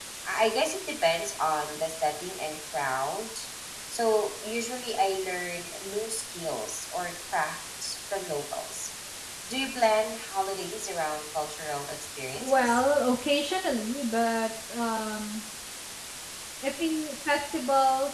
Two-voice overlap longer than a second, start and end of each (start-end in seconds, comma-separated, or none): none